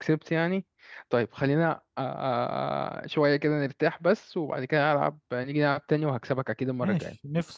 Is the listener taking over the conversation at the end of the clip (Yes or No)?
Yes